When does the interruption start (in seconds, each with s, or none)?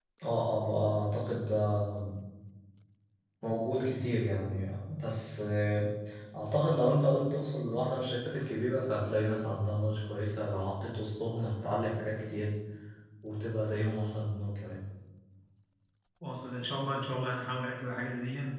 none